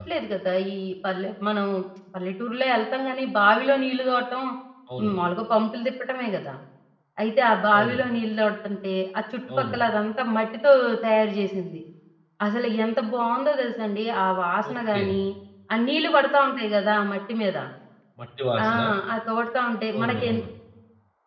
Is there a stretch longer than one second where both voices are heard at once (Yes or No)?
No